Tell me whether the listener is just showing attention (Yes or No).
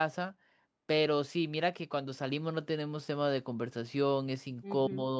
Yes